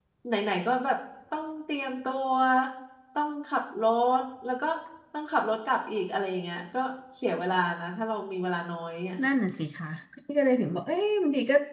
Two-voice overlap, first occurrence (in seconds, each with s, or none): none